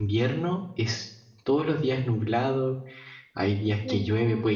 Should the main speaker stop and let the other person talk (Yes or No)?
No